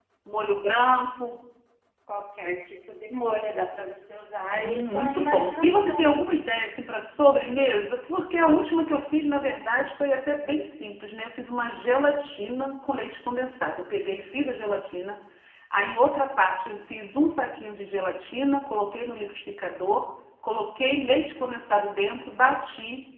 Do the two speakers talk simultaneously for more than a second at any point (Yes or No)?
Yes